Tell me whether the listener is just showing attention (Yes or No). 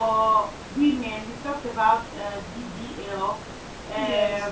Yes